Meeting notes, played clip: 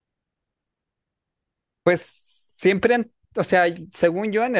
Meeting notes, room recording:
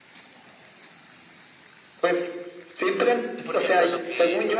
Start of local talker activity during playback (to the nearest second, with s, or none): 3 s